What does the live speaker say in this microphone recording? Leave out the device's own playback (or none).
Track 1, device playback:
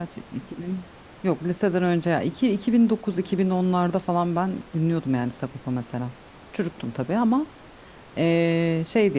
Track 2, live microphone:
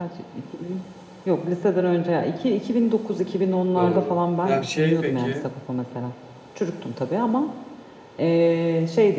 doğru. Ya şey peki.